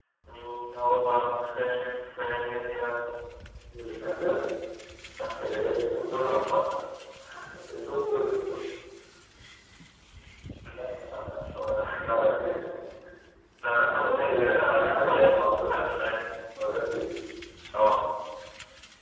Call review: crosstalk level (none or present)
present